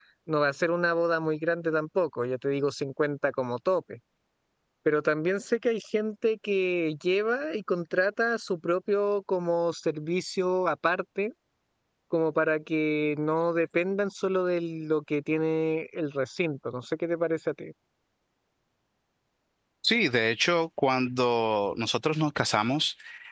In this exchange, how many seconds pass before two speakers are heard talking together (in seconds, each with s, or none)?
none